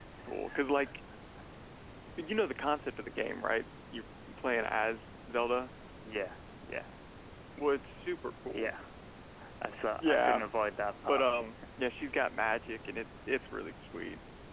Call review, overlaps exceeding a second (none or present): none